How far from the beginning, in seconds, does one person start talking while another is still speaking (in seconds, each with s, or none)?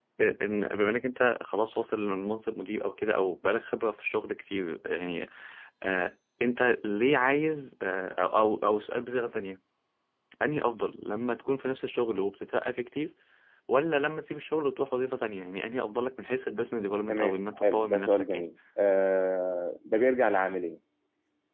17.1 s